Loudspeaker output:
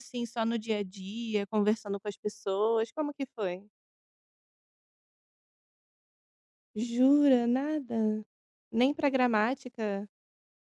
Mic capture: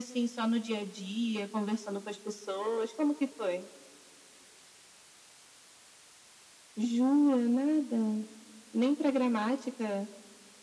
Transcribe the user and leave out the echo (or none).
none